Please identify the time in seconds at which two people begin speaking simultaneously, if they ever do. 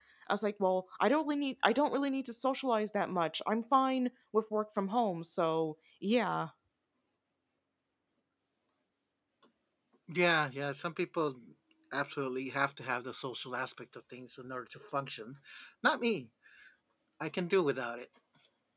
none

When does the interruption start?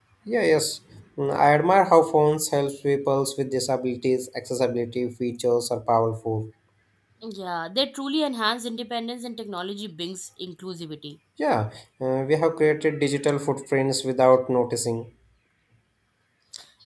none

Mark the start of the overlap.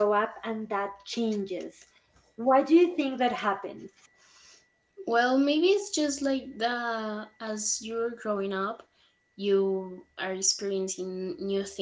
none

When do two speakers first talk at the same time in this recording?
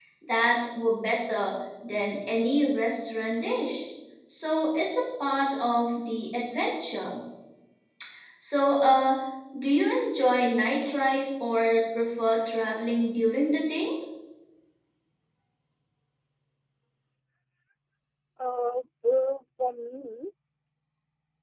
none

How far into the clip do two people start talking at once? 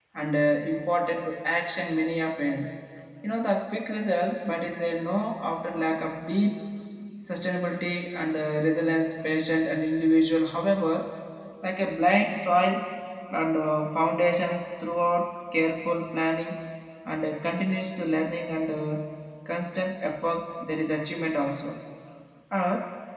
none

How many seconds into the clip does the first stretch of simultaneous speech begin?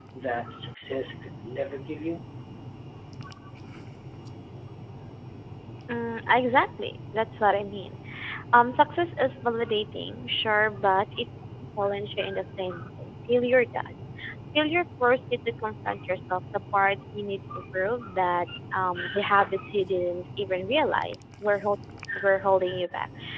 none

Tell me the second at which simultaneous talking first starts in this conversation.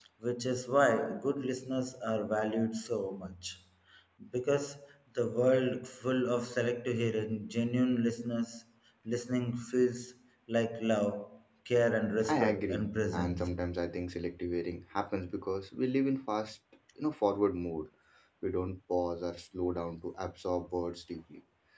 12 s

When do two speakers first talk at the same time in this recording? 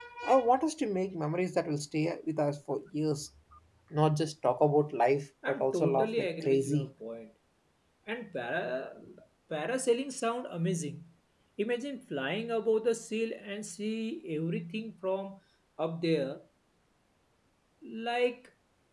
5 s

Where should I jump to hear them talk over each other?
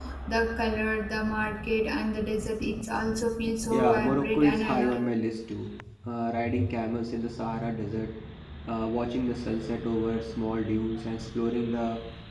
4 s

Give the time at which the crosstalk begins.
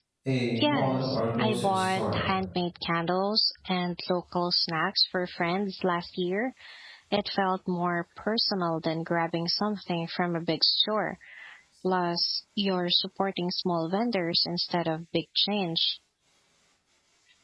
1 s

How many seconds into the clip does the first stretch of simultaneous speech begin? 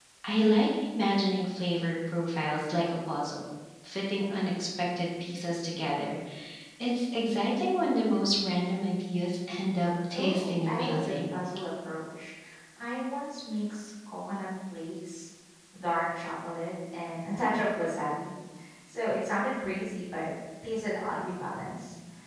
10 s

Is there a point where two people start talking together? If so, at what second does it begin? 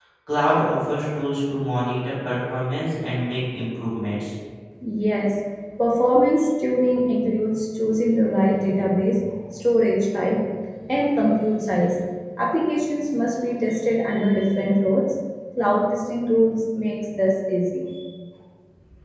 none

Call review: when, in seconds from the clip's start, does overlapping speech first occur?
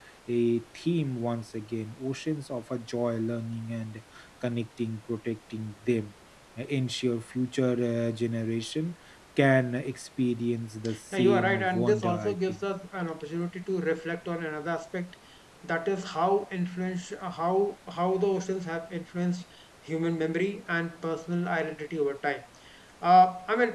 11 s

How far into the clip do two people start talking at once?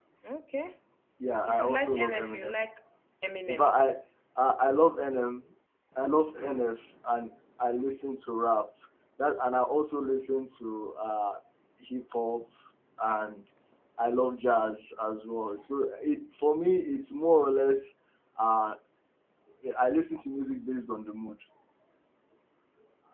1 s

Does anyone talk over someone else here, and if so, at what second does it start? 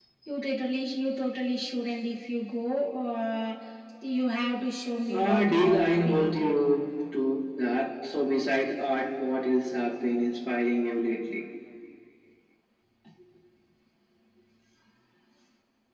5 s

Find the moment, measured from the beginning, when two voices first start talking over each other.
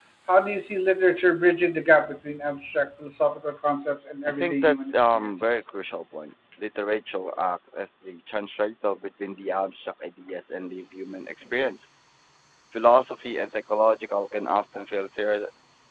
4 s

